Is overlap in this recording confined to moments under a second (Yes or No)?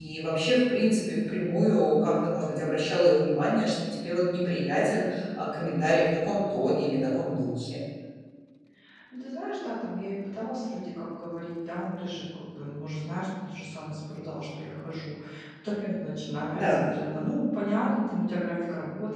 Yes